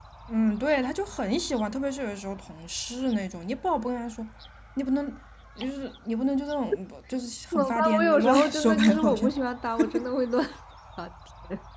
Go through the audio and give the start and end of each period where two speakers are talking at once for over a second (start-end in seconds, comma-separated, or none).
7.5-9.3